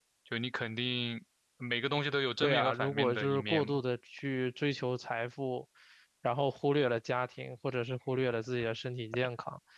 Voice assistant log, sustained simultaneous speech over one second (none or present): present